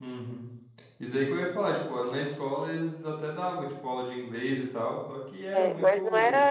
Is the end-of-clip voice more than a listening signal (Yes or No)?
Yes